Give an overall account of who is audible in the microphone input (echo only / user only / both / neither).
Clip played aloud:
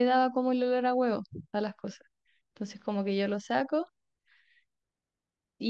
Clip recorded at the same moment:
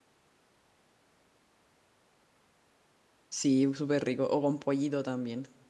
user only